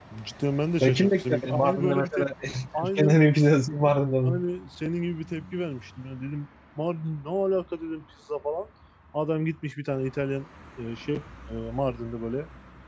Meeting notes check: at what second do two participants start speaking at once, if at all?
0.8 s

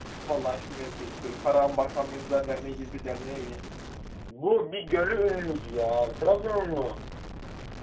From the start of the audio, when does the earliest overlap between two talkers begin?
none

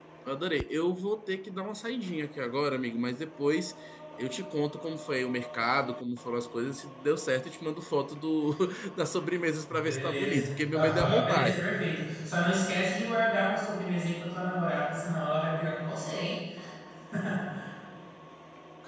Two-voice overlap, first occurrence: 9.7 s

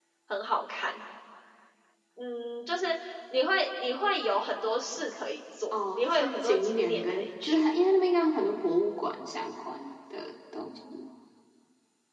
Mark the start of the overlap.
5.7 s

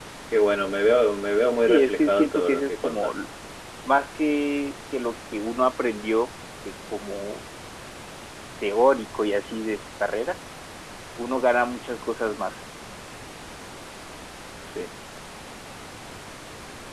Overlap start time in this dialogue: 1.6 s

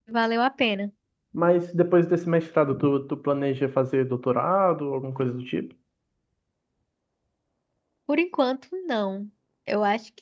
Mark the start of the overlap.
none

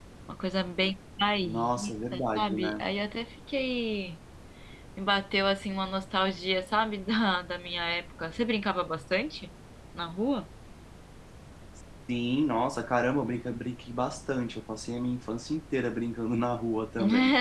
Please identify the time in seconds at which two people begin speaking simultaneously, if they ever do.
1.4 s

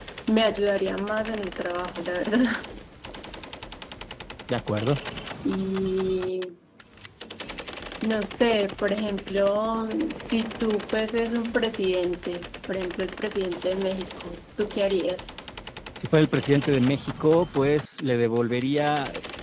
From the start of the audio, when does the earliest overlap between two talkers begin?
none

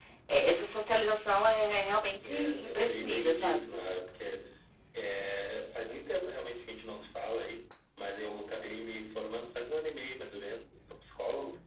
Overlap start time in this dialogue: 2.2 s

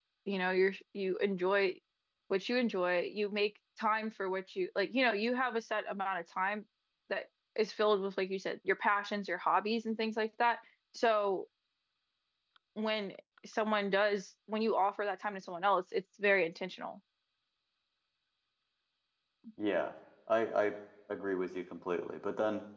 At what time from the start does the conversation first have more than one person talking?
none

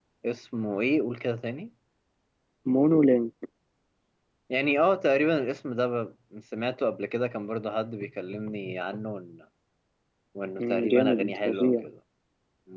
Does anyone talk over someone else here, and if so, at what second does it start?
10.6 s

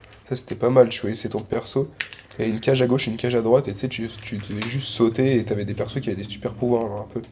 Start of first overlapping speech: none

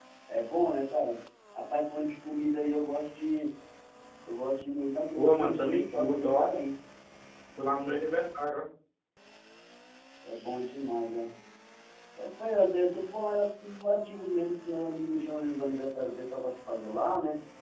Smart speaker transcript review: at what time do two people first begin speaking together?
5.2 s

